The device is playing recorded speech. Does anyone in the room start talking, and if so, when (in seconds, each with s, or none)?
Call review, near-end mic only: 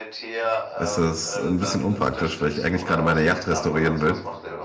0.8 s